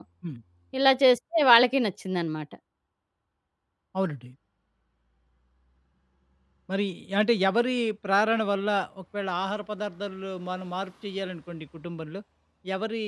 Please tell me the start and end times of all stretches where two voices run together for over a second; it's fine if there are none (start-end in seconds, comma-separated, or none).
none